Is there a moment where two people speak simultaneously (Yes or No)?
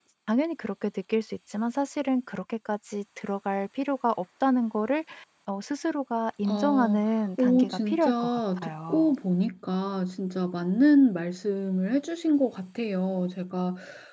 Yes